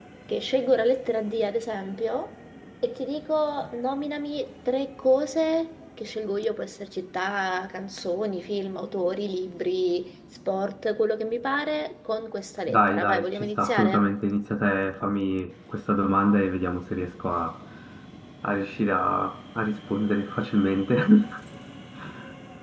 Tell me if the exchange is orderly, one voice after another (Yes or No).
No